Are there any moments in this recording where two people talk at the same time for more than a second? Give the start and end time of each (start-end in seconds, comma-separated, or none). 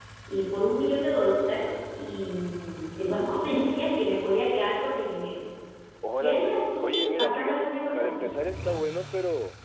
6.2-8.3